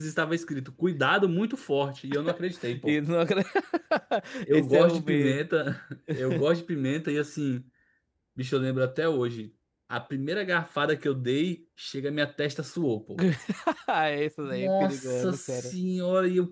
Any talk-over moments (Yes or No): Yes